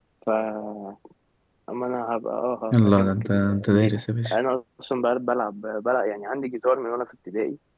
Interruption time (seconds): 2.7 s

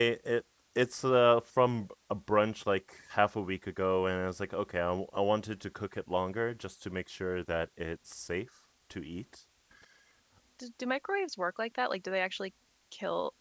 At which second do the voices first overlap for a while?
none

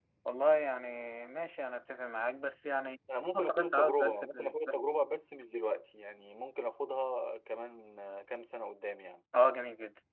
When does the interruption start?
3.3 s

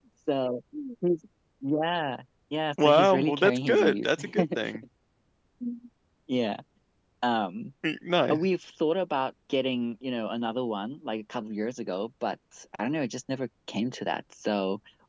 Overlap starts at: 2.8 s

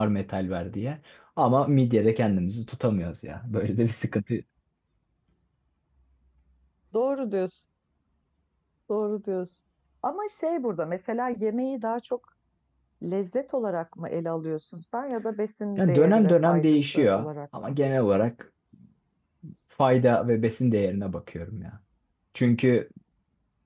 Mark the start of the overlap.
15.8 s

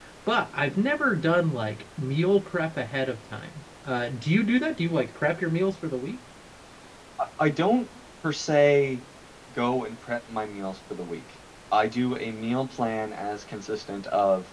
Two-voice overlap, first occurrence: none

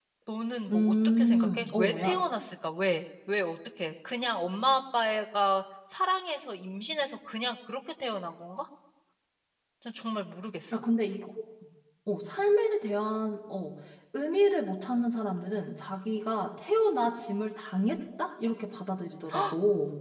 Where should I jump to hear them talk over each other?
0.7 s

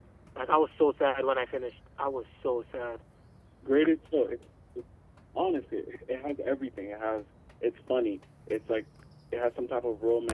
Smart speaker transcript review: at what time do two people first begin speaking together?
none

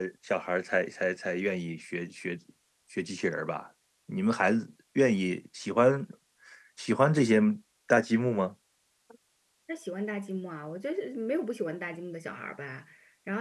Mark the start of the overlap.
none

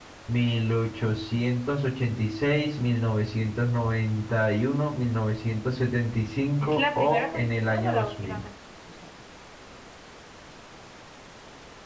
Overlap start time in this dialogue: 6.6 s

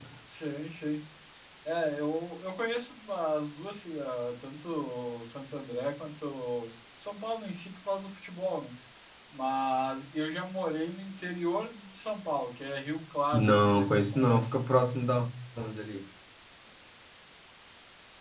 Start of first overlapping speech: 13.3 s

